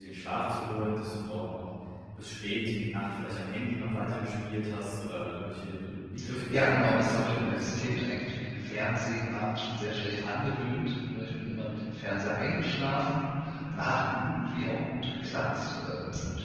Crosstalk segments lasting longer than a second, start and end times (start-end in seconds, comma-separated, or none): 6.5-7.9